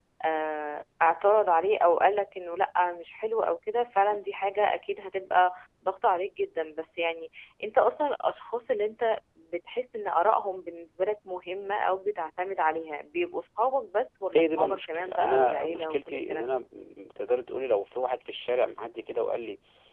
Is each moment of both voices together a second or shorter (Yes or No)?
No